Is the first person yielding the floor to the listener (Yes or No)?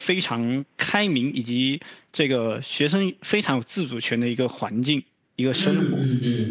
Yes